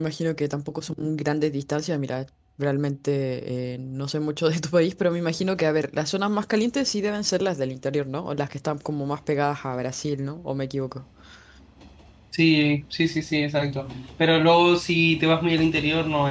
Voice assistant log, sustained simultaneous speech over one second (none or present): none